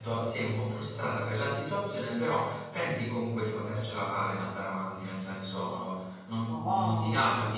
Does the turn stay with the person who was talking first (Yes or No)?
Yes